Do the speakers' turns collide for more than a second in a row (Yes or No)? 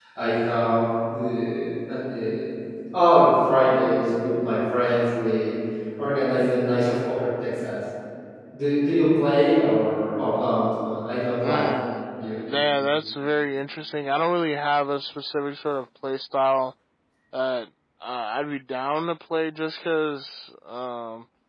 No